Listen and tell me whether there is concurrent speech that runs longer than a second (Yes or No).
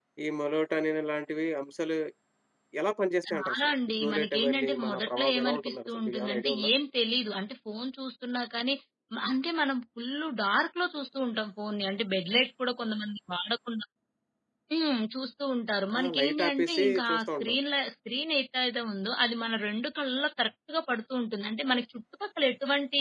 Yes